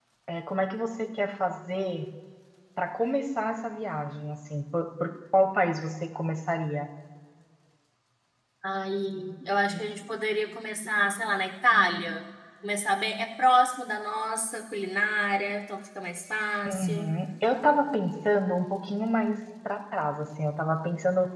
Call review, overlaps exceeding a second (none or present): none